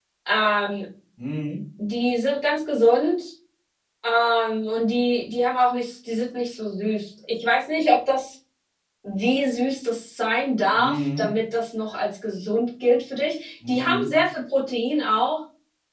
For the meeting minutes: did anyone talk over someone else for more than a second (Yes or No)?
No